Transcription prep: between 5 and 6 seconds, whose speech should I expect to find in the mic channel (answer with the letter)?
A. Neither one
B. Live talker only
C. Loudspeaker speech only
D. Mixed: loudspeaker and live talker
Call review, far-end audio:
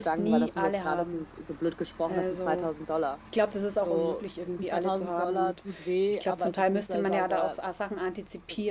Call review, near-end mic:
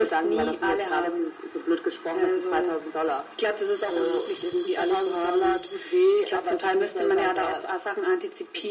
C